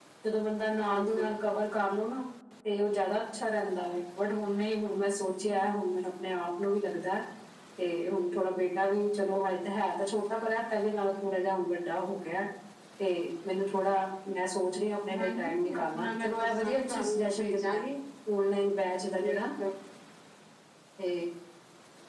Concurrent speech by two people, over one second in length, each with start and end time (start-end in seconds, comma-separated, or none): 15.2-17.8